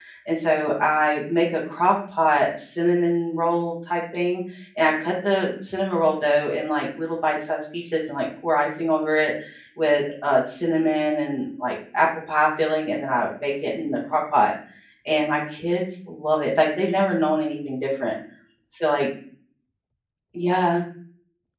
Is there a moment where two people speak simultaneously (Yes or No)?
No